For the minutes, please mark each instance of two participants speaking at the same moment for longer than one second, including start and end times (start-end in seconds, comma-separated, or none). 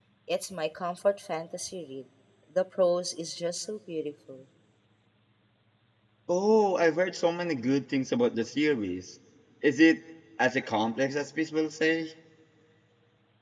none